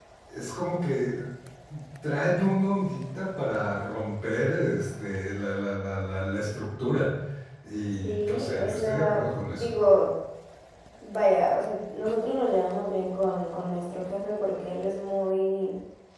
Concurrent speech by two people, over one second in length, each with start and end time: 8.0-9.7

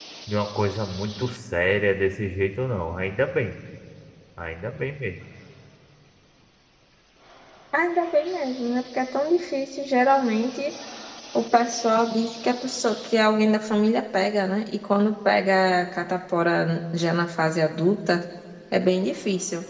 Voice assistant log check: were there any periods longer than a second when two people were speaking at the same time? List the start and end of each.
none

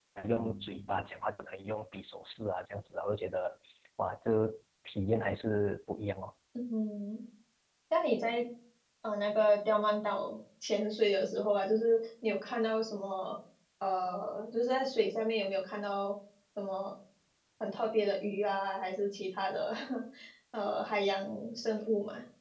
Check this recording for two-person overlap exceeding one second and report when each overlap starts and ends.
none

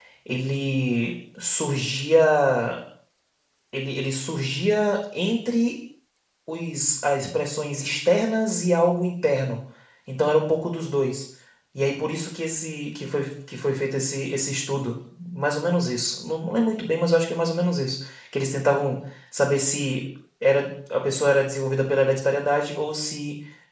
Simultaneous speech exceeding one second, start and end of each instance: none

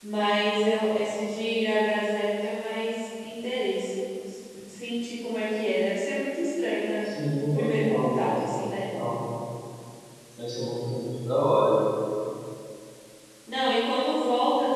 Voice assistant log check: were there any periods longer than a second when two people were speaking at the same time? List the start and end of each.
7.4-8.8

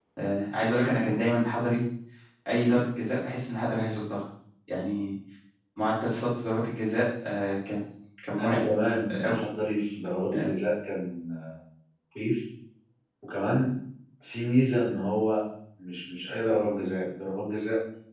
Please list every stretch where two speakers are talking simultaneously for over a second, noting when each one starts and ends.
none

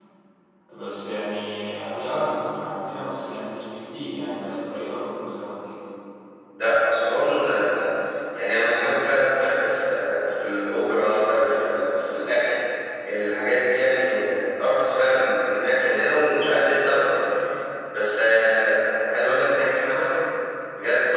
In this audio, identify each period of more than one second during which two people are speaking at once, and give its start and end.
none

